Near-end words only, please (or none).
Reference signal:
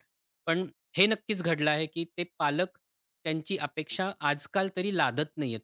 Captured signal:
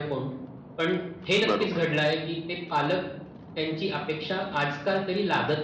बरोबर.